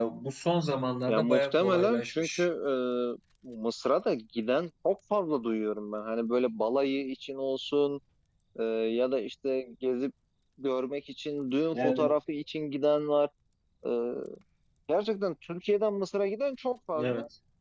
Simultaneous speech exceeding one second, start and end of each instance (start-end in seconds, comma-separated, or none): 1.1-2.5